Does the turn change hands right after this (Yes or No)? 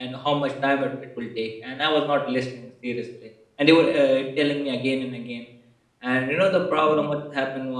No